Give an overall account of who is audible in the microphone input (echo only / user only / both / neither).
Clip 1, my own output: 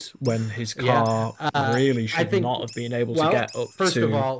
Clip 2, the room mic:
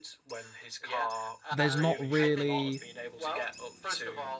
both